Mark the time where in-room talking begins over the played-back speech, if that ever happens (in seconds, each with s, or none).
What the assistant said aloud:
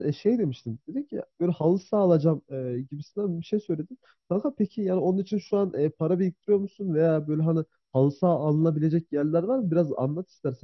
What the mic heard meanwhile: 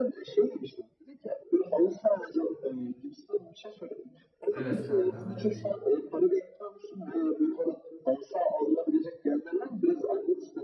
4.5 s